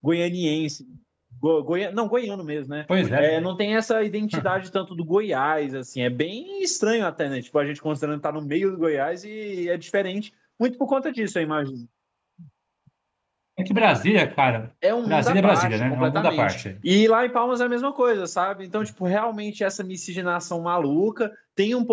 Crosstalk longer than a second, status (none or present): present